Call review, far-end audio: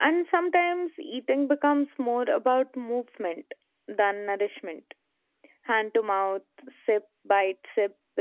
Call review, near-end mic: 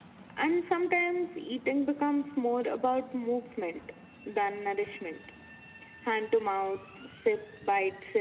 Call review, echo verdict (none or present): present